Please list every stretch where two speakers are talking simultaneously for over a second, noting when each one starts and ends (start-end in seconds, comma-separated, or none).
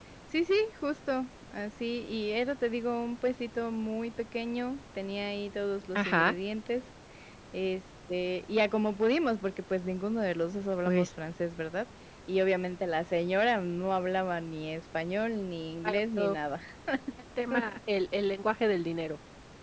none